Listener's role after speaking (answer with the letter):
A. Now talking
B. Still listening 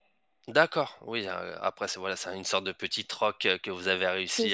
A